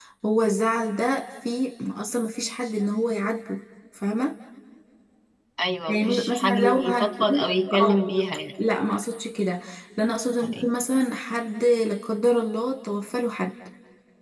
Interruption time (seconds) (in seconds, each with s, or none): 5.9 s